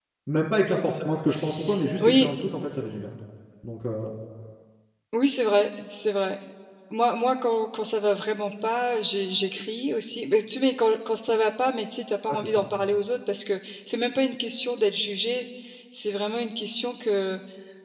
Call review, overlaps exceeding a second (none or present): none